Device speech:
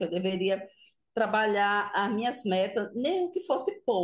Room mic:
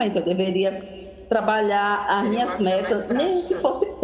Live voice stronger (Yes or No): No